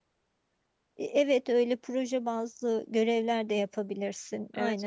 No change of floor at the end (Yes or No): No